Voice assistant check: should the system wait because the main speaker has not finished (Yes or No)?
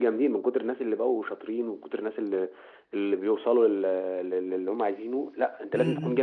No